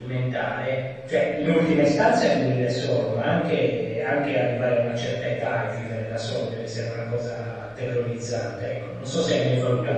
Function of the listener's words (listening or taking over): taking over